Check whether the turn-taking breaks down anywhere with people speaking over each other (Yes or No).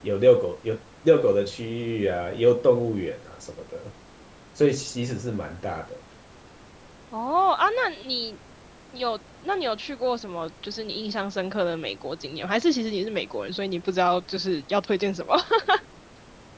No